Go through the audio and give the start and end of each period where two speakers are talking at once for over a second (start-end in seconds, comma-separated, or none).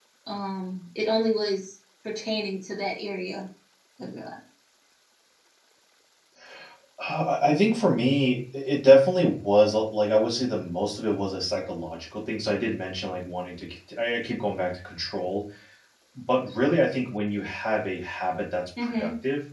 none